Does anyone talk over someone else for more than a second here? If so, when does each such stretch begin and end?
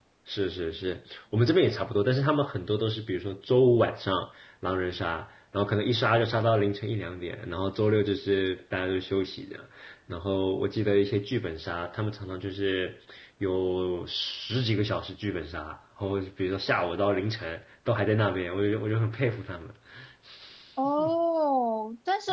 none

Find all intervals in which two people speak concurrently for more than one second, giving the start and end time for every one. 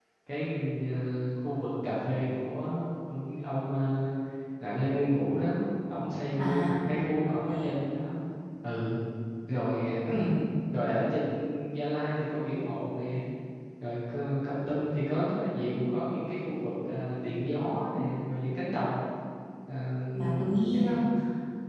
6.4-7.8

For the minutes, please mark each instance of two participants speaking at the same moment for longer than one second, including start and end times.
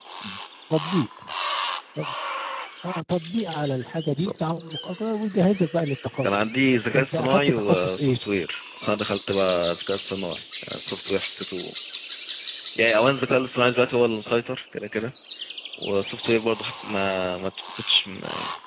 6.9-8.2

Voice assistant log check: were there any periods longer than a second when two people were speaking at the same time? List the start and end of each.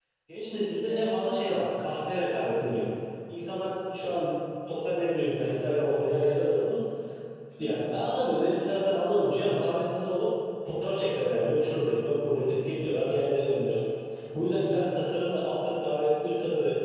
none

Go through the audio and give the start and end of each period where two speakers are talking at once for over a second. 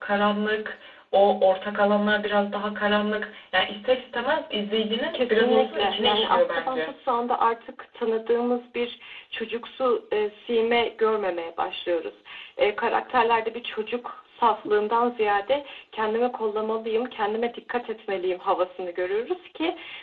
5.1-6.9

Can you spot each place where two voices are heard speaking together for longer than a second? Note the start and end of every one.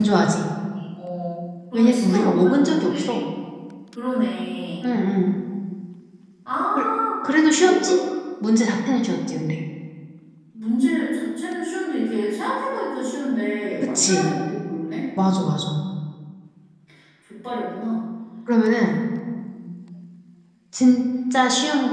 1.7-3.2

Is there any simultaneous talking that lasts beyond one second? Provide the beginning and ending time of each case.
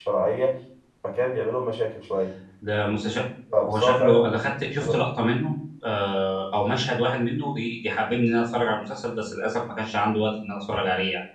3.6-5.0

